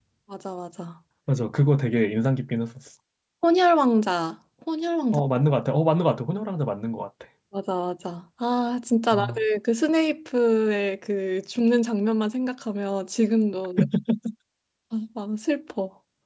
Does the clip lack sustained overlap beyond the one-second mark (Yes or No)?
Yes